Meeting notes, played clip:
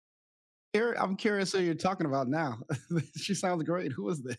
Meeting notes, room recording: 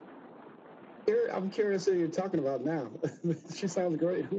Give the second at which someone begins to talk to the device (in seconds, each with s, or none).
none